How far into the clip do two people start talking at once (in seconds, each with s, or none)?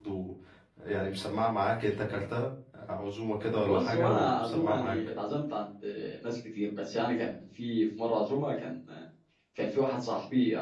3.6 s